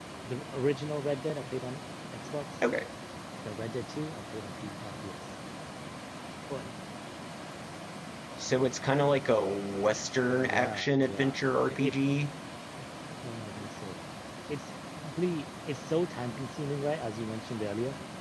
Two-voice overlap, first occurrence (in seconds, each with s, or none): 10.3 s